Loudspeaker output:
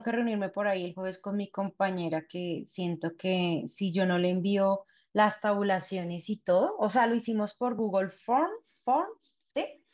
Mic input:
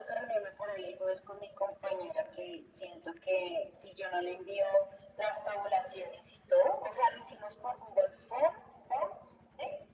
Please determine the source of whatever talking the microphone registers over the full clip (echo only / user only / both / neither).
echo only